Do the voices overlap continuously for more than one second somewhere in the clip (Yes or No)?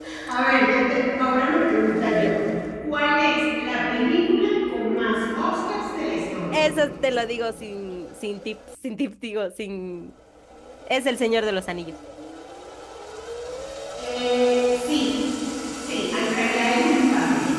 No